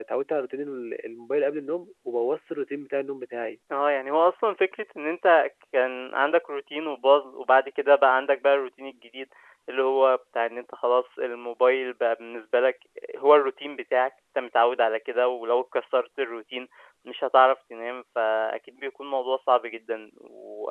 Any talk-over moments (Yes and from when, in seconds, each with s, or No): No